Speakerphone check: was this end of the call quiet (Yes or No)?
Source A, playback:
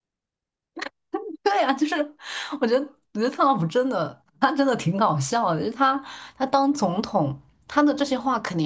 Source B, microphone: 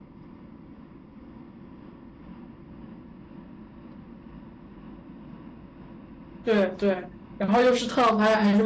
No